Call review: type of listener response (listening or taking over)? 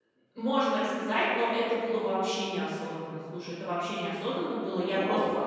listening